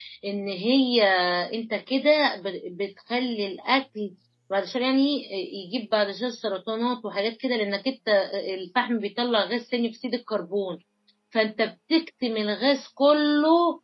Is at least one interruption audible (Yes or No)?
No